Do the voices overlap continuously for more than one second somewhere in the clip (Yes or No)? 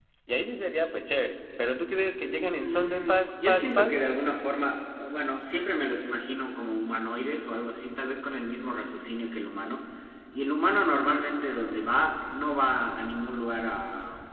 Yes